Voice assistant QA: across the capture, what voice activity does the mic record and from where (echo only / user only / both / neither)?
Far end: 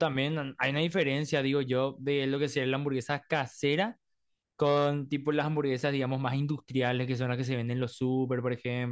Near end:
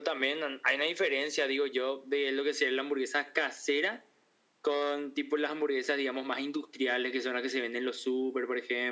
echo only